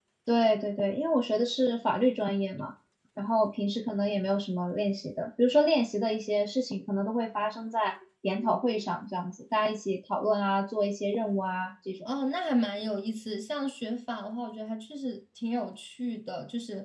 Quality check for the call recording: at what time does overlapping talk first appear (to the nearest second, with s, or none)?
none